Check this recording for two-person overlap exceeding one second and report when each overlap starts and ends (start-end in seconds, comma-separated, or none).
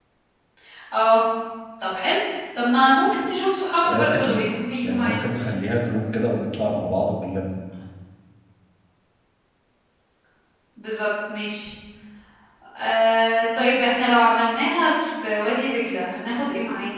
3.8-5.2